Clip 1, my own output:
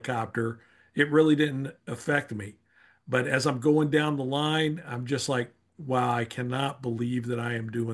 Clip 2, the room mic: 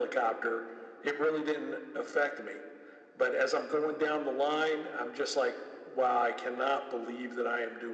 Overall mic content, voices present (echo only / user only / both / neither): echo only